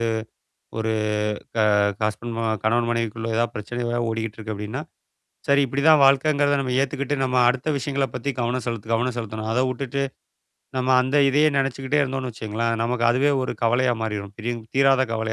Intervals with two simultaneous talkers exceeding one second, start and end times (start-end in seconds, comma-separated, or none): none